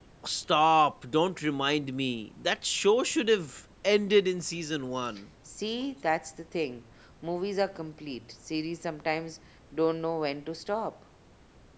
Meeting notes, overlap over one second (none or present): none